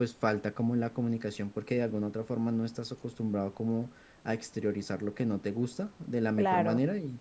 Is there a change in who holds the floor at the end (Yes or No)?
No